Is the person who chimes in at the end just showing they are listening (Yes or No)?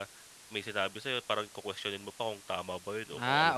No